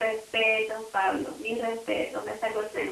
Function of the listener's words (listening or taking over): taking over